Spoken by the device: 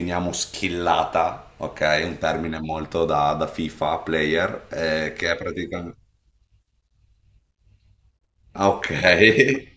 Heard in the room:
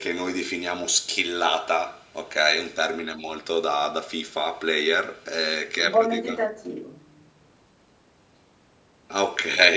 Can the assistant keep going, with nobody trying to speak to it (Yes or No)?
No